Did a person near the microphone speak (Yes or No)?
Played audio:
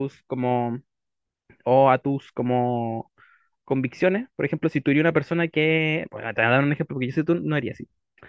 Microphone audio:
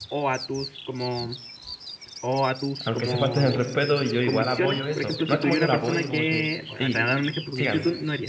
Yes